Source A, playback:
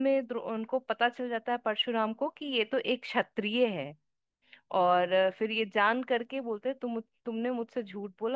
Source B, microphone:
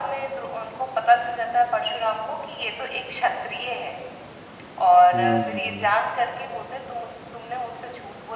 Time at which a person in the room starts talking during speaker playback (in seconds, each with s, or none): 5.1 s